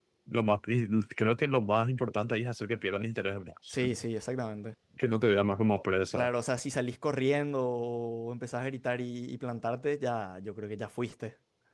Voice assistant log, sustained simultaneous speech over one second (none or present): none